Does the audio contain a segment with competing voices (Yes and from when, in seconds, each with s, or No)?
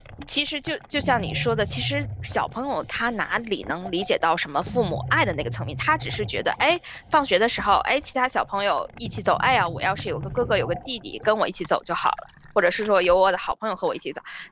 No